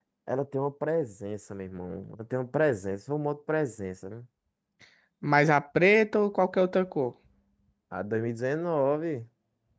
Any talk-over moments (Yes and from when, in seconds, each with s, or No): No